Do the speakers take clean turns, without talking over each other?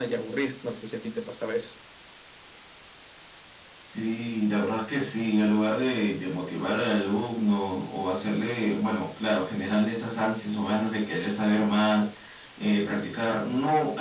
Yes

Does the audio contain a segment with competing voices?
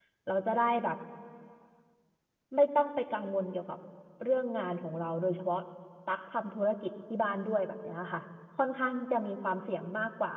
No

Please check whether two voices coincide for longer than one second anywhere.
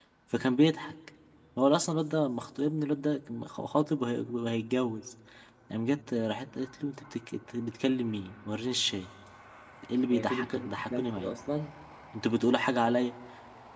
Yes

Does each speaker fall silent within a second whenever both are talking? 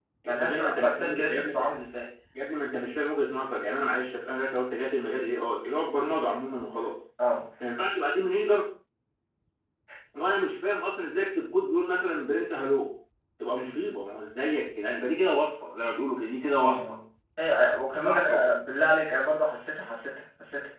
No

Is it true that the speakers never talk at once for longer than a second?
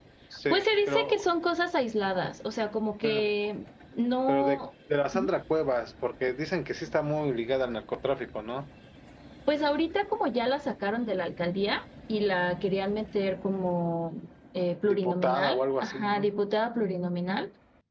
No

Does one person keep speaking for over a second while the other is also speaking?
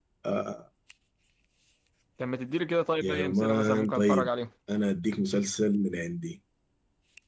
Yes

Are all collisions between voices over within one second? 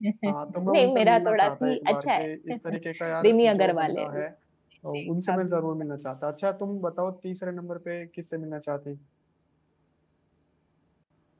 No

